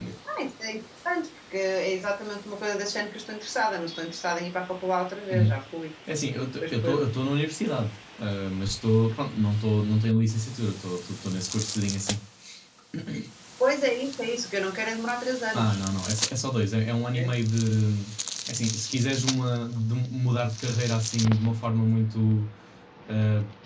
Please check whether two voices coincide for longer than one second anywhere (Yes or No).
No